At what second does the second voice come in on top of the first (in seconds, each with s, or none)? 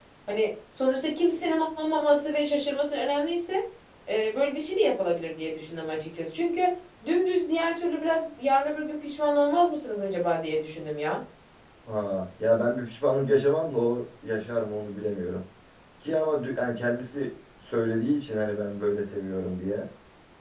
none